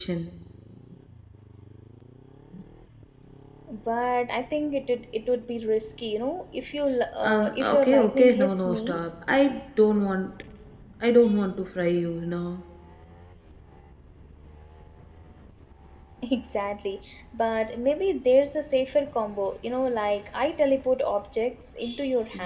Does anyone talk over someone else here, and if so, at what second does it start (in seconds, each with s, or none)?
7.2 s